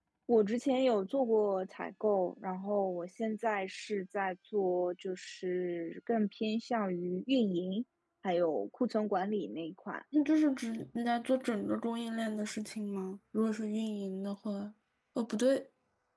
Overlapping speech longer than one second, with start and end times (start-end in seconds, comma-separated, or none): none